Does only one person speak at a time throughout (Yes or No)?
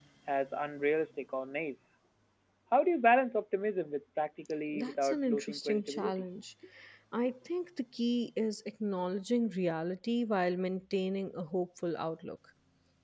No